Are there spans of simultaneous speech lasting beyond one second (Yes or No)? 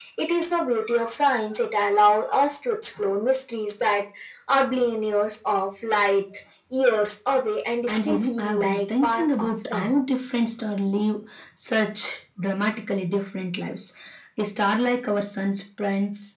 Yes